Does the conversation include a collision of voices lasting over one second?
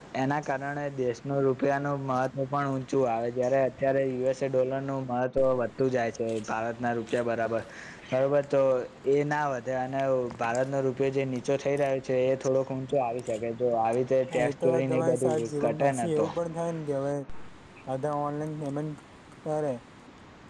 Yes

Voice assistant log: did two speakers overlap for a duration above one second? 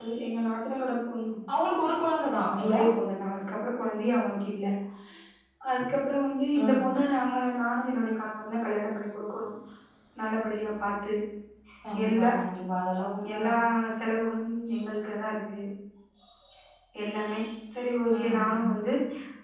No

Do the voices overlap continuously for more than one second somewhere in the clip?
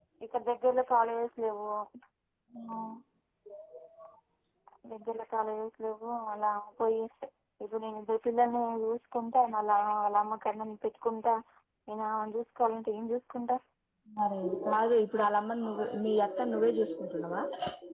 No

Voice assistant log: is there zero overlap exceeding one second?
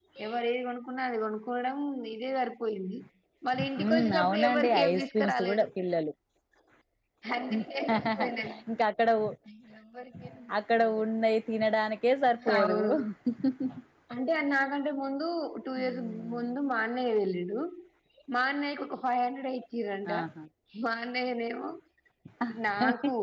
No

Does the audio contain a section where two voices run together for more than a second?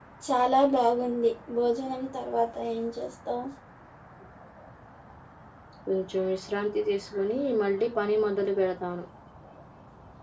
No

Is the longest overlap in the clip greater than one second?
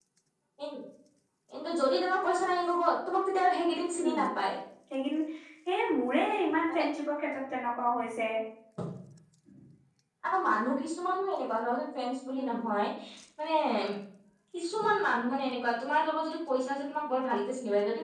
No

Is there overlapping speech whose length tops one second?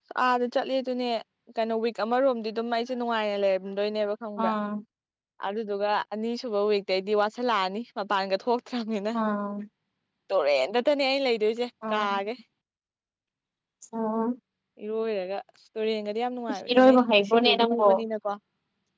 Yes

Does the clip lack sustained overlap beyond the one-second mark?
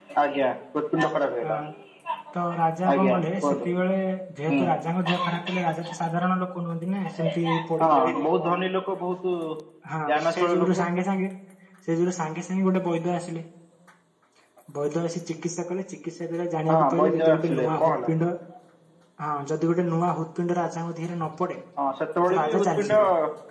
No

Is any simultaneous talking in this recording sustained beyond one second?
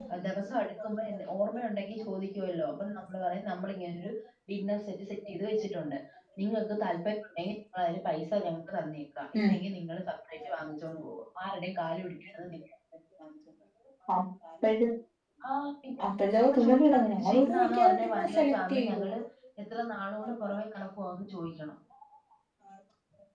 Yes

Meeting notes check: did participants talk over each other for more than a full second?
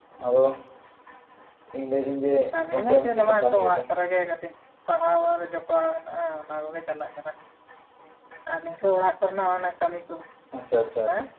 Yes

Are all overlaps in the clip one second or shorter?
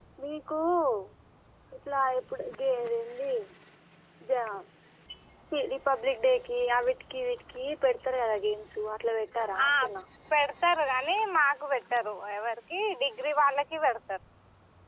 Yes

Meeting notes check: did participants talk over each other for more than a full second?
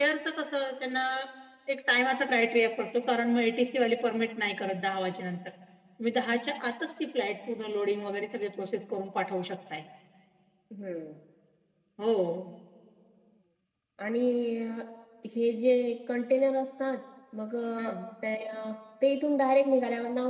No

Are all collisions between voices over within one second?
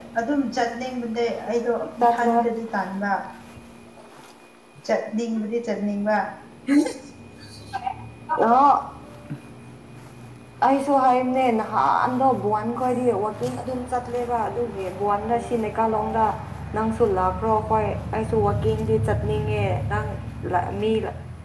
Yes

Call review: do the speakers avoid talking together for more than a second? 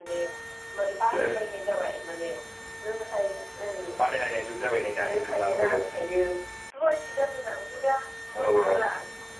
No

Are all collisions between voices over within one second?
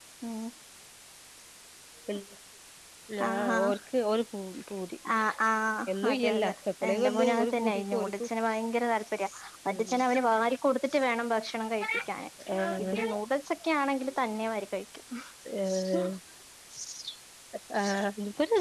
No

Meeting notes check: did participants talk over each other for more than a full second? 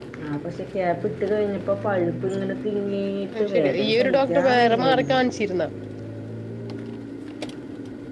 Yes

